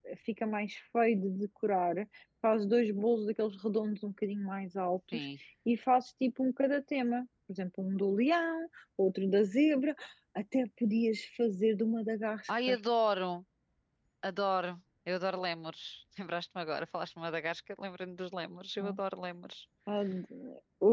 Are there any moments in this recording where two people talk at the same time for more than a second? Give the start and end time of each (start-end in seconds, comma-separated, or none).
none